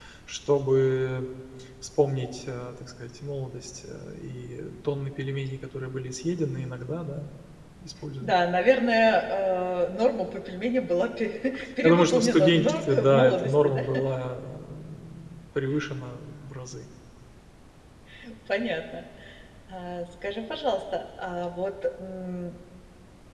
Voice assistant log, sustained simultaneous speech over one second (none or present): present